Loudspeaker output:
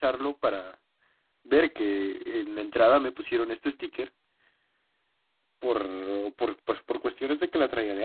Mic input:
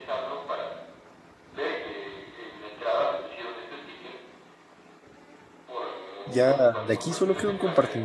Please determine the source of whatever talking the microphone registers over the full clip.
both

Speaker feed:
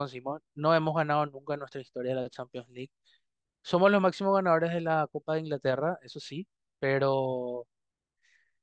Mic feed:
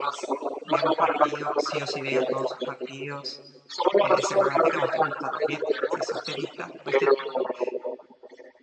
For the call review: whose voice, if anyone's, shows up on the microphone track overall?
both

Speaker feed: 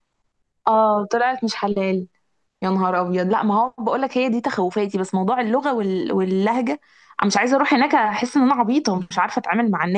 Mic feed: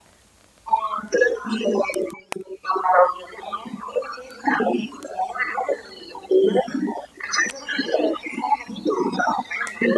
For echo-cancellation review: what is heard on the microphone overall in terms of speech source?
echo only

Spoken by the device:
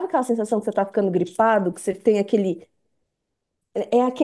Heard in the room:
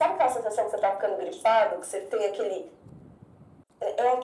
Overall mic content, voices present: echo only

